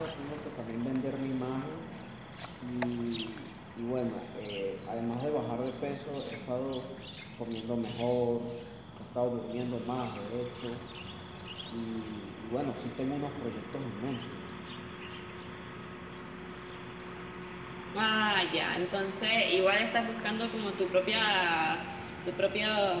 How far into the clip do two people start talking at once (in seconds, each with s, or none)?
none